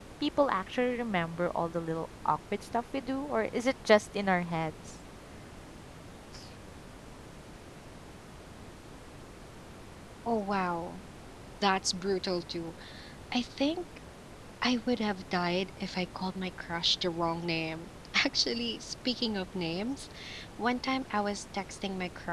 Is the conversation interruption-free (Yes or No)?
Yes